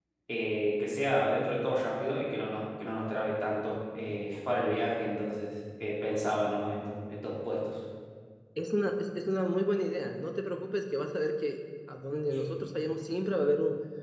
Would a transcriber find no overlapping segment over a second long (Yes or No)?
Yes